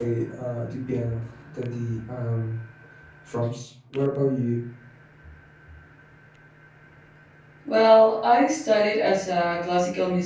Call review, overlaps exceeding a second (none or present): none